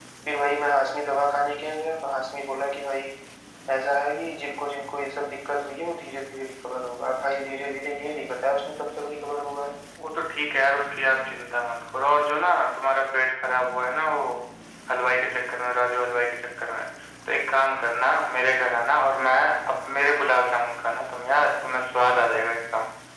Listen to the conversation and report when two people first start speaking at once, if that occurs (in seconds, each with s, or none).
none